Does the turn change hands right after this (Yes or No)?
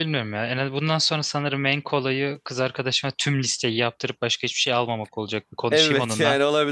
Yes